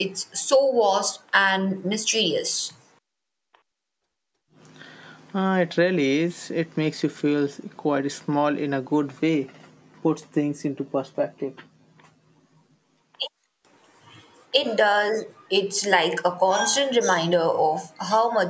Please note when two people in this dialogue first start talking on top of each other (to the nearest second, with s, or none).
none